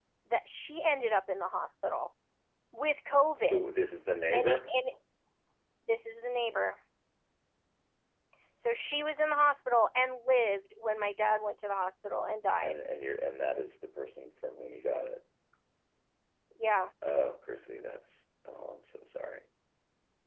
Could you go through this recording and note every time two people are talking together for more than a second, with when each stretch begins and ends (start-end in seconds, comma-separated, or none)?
none